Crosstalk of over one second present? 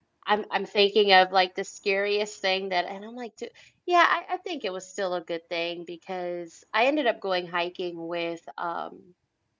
No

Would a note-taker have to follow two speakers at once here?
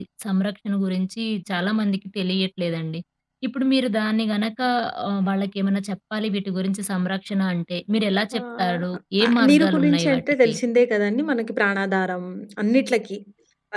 Yes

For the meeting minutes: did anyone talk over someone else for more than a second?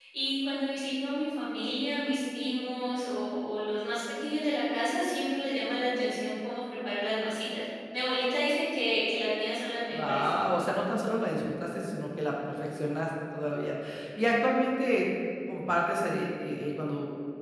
No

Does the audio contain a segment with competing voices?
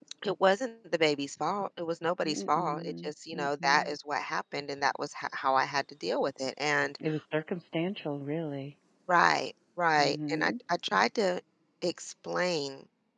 Yes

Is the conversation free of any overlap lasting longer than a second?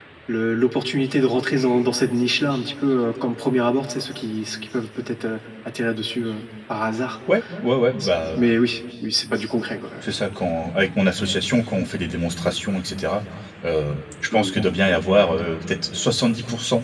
Yes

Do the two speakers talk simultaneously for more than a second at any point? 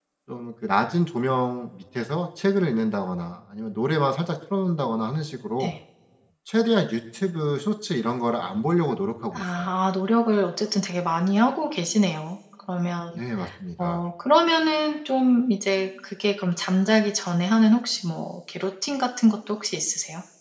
No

